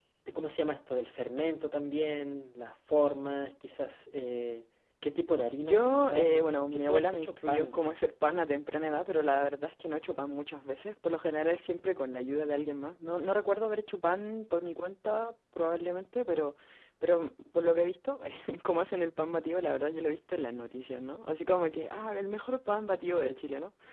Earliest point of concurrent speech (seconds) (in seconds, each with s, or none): 5.6 s